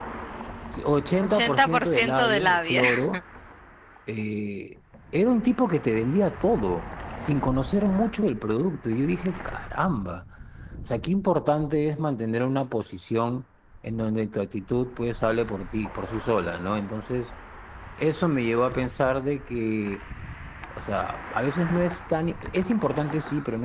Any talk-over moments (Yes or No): Yes